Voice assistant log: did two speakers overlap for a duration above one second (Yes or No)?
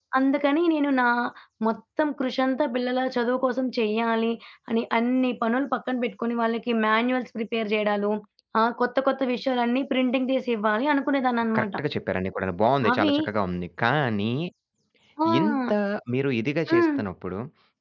No